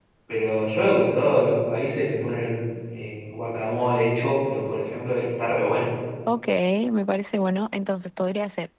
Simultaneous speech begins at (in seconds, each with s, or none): none